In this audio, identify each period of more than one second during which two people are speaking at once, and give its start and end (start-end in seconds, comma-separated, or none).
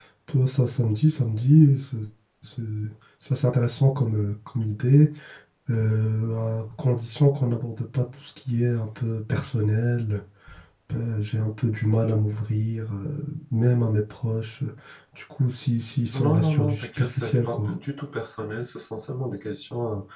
16.1-17.7